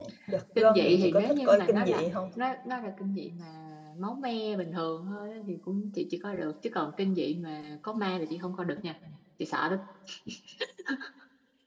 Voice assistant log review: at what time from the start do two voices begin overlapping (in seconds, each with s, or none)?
0.6 s